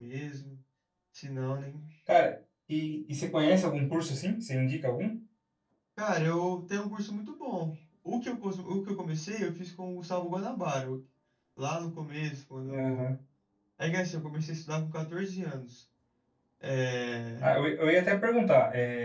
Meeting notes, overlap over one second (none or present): none